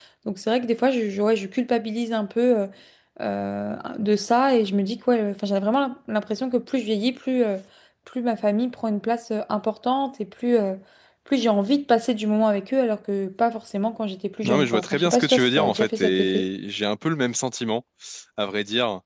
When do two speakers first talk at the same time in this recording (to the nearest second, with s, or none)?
14 s